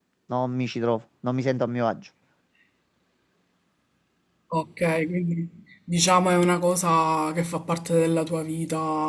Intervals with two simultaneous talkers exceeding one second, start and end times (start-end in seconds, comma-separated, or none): none